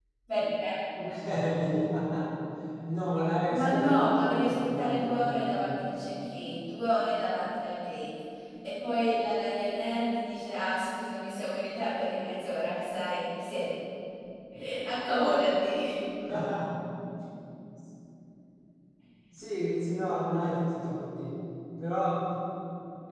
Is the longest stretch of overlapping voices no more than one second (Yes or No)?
No